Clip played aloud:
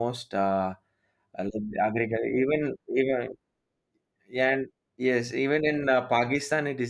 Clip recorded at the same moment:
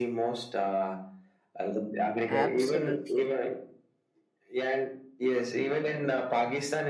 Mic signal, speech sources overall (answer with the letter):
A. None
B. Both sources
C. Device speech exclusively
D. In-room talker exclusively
B